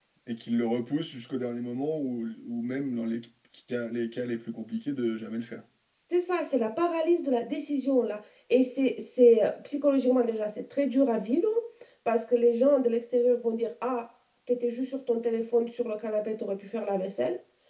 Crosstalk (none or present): none